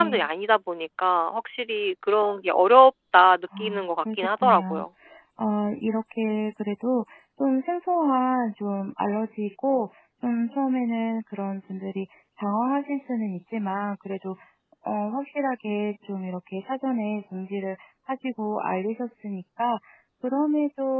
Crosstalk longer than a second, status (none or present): present